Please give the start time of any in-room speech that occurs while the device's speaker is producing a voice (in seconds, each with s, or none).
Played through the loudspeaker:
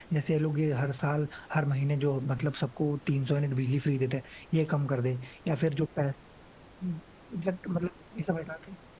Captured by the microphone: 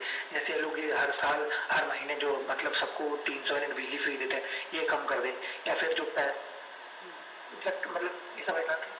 none